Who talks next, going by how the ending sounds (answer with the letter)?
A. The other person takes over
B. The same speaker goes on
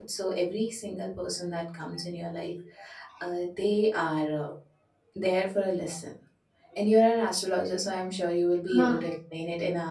B